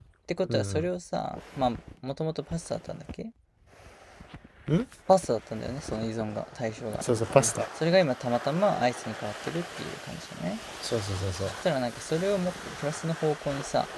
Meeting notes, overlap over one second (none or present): none